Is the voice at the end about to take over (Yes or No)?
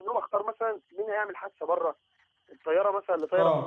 No